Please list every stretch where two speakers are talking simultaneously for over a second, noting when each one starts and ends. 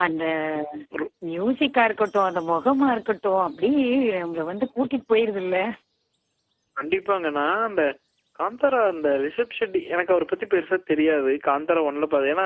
none

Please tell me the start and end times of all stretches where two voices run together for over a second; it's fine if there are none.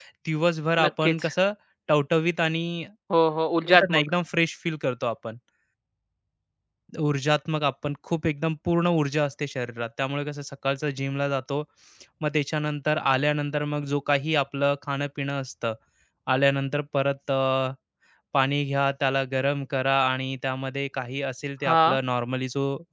none

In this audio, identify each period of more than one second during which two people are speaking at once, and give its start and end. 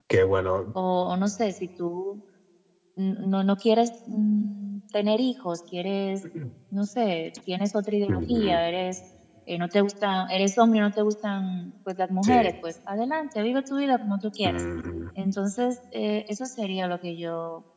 none

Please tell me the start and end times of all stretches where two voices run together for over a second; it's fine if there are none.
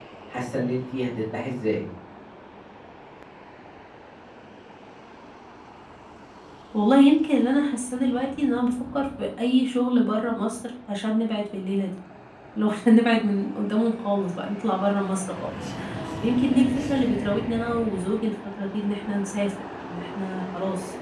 none

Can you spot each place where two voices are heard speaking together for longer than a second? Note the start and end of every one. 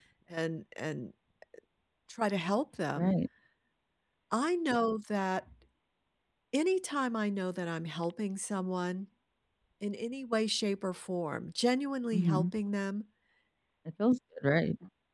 none

